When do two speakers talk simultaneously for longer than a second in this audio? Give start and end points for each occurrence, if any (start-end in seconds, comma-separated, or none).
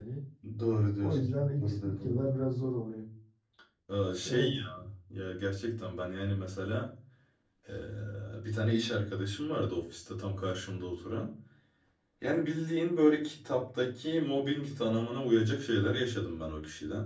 1.0-2.3